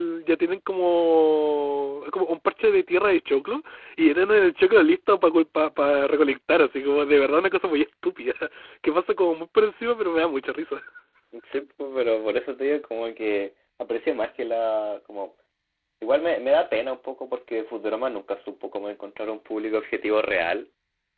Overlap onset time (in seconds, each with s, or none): none